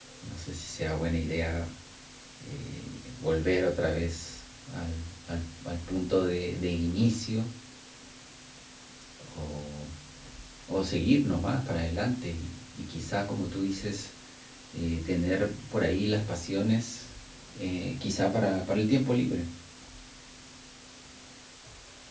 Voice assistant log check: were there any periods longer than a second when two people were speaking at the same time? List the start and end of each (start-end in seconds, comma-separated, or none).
none